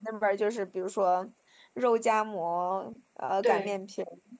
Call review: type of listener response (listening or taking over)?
listening